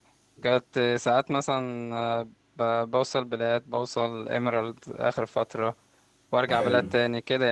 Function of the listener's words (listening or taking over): listening